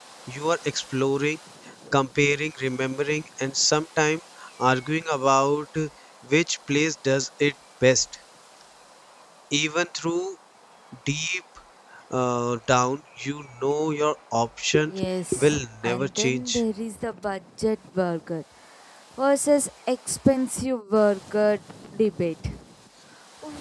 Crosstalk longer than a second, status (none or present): present